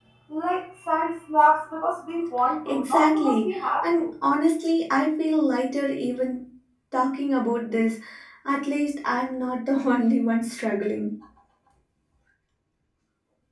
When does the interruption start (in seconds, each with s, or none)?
2.6 s